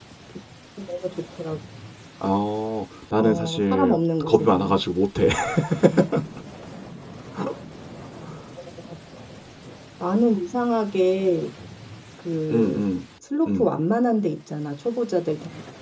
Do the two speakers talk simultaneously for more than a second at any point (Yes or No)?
Yes